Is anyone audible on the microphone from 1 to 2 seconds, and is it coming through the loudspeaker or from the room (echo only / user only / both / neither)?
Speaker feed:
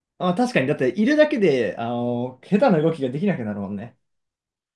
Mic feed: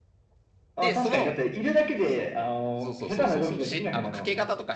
both